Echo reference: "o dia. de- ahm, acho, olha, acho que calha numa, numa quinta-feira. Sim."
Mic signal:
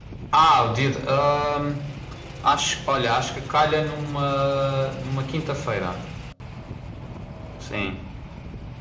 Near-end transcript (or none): none